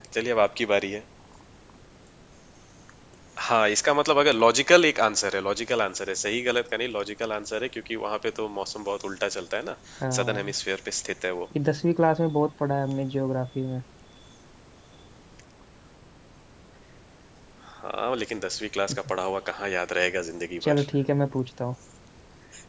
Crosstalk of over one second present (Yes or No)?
No